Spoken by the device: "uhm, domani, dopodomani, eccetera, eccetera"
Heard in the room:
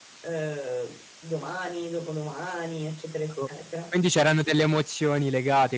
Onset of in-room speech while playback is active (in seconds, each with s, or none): 3.3 s